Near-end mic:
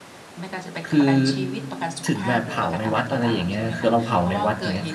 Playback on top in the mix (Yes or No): No